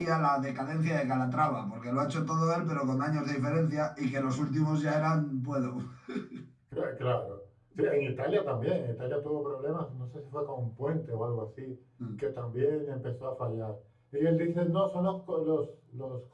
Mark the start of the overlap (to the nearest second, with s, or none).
none